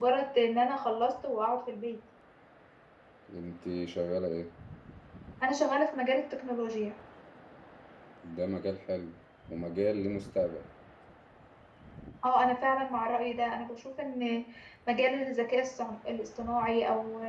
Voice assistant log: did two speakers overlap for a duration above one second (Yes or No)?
No